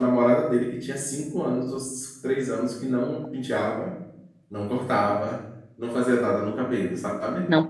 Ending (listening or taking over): listening